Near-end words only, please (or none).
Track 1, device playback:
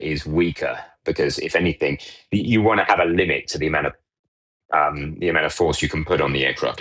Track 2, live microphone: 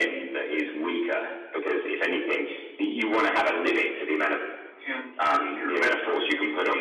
hand air finger quotes.